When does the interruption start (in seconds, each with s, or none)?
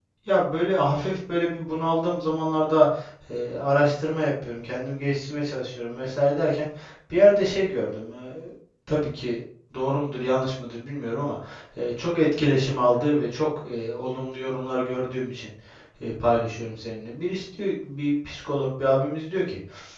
none